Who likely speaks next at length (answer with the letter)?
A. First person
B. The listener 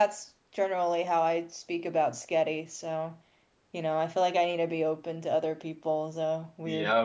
B